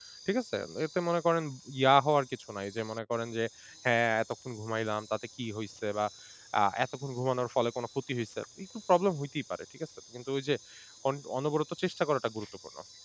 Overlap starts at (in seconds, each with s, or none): none